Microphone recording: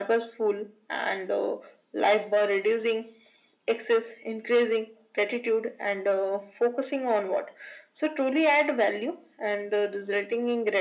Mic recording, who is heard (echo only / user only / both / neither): echo only